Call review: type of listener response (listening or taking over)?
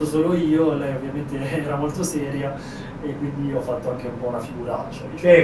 taking over